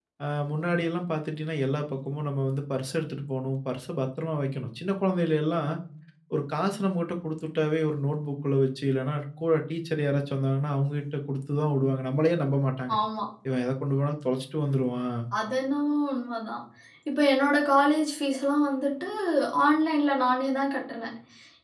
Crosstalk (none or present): none